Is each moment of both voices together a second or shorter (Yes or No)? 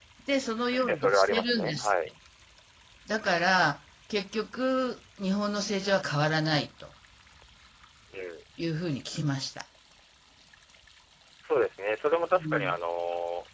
No